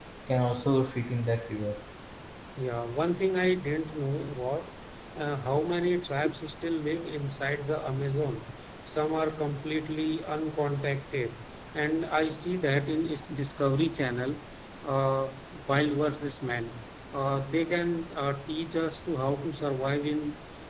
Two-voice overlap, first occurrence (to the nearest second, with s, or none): none